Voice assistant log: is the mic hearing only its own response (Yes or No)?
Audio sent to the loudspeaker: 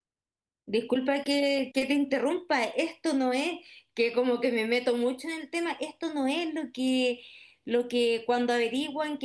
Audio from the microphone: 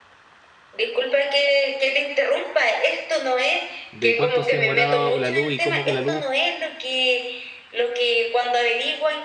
No